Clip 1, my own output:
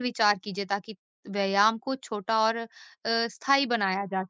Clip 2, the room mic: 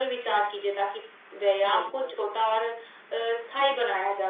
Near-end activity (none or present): present